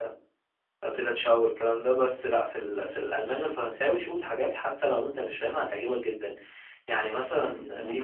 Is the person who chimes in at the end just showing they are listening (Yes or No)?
No